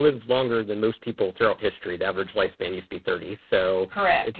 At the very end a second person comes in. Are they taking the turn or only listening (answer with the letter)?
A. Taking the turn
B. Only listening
B